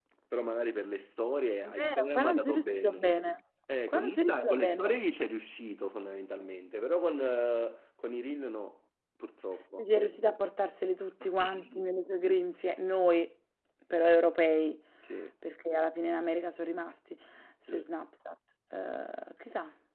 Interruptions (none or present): present